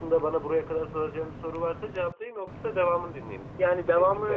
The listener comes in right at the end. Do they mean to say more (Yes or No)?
Yes